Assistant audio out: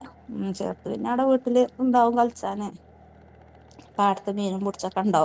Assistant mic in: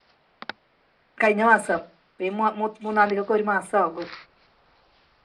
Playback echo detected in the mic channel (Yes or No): No